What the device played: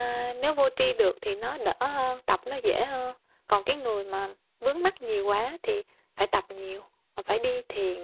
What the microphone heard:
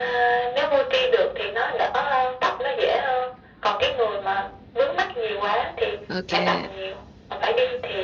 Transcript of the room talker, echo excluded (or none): ok